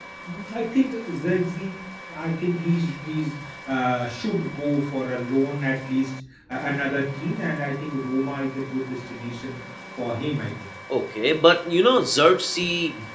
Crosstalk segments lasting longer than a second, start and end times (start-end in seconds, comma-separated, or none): none